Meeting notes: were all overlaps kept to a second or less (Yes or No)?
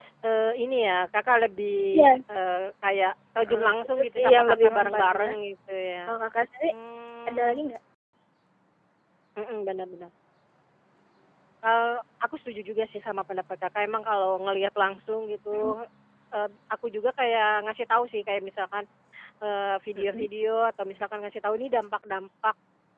No